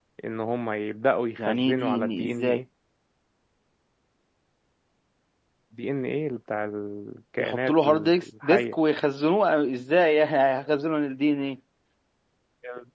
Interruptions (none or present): present